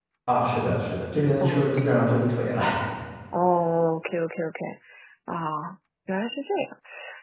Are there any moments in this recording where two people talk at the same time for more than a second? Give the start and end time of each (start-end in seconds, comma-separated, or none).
none